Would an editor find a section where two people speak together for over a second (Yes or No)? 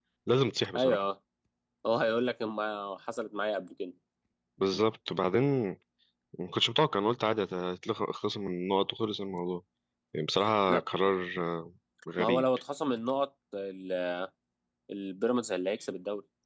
No